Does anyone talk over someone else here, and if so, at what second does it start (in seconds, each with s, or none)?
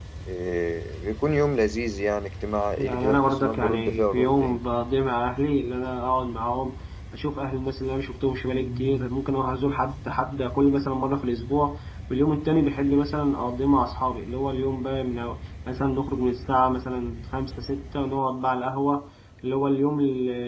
2.8 s